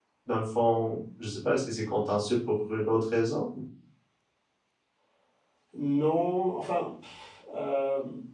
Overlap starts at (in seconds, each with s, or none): none